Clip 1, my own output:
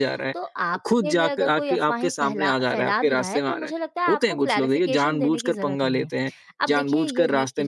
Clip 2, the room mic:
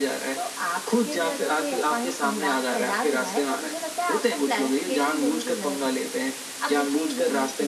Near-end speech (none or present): none